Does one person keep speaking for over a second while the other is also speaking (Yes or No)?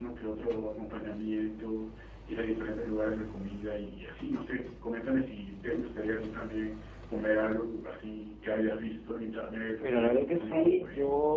Yes